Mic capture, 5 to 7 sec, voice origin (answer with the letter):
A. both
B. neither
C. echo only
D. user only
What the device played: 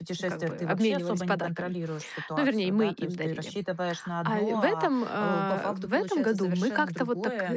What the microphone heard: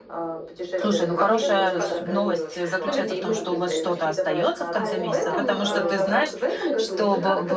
A